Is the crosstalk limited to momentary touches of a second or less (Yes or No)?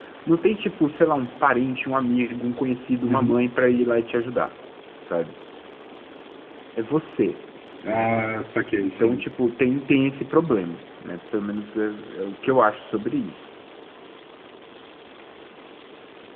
Yes